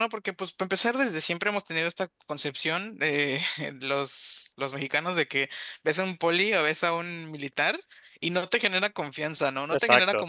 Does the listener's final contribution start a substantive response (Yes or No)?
Yes